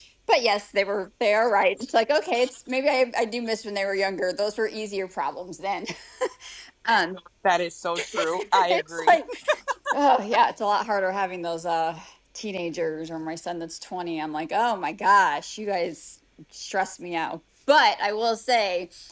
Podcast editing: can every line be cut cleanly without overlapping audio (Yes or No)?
No